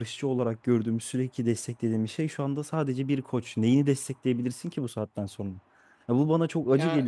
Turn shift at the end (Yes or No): No